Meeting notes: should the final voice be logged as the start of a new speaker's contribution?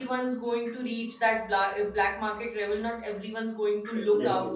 No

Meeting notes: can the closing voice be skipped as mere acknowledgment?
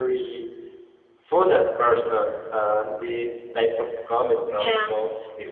Yes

